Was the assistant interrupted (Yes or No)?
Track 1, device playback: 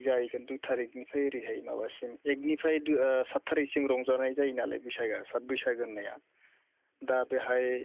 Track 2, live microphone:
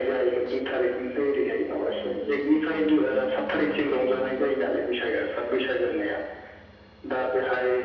Yes